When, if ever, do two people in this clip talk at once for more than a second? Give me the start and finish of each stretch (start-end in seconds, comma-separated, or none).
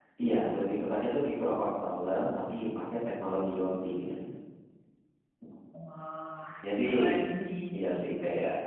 none